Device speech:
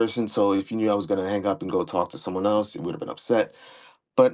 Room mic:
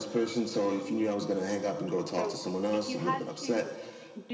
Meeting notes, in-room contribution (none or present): present